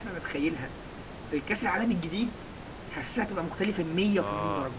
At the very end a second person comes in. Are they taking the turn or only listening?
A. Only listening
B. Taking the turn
B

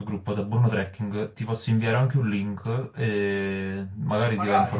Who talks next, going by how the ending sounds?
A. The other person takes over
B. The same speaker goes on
B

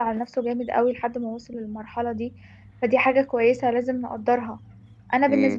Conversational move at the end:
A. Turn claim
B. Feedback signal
B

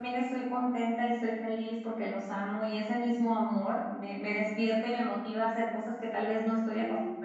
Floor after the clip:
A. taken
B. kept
B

